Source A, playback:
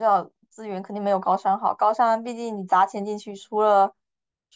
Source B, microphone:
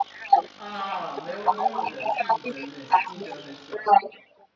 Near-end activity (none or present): present